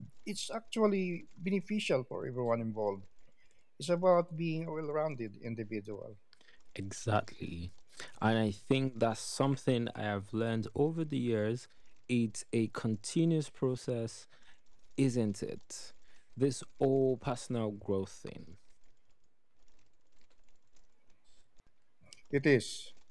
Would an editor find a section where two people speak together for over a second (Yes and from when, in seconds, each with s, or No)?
No